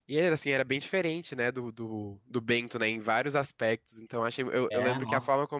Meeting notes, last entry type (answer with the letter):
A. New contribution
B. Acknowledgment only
B